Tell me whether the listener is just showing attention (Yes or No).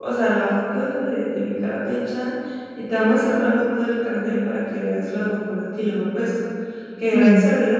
Yes